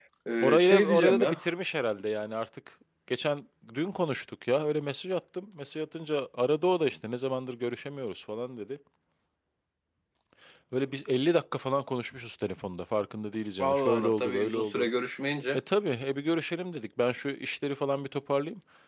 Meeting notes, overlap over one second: present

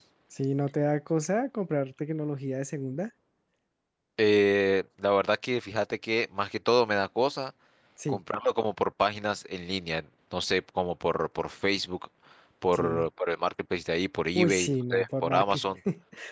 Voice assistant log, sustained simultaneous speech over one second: present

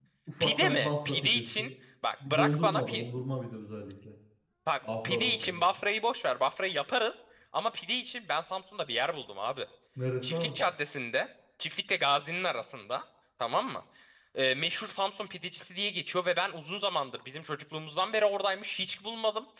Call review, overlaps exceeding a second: present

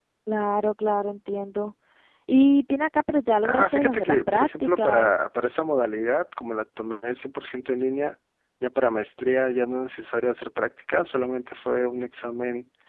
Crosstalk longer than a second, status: present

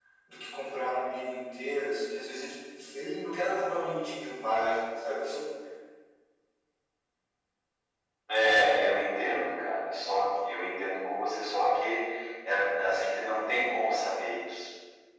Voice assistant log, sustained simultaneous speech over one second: none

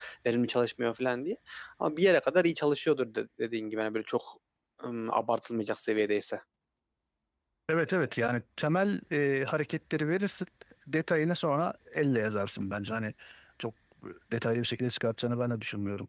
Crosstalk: none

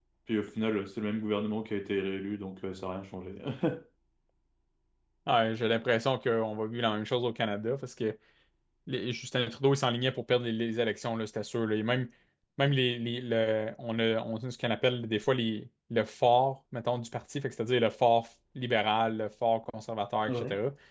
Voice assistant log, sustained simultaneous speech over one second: none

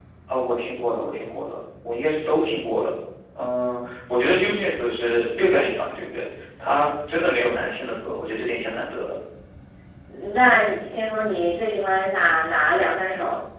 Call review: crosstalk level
none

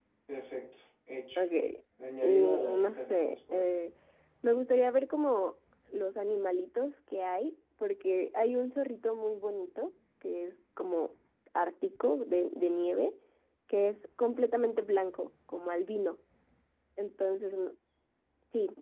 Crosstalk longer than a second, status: present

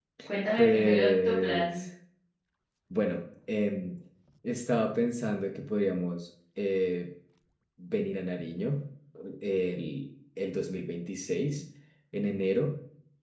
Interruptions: present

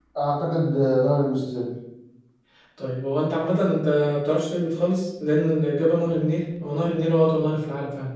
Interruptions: none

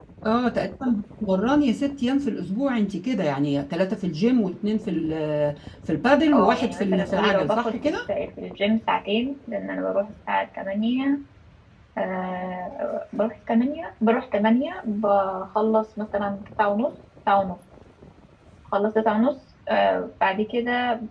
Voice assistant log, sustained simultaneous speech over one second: present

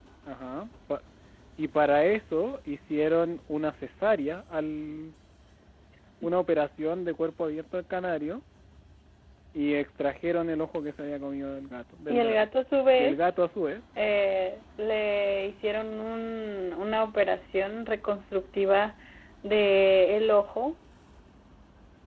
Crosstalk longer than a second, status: none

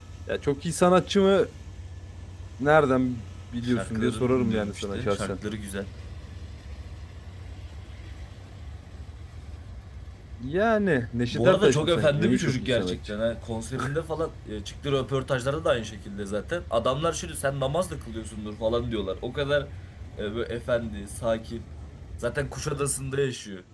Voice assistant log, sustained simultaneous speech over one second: present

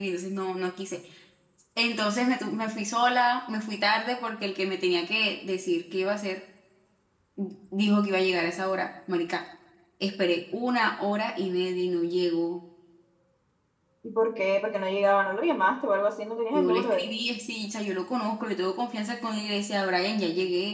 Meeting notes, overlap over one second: none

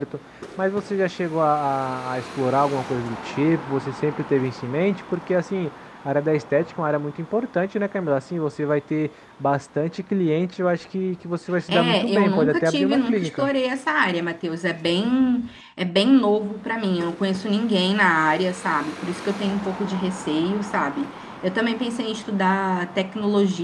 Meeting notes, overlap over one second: present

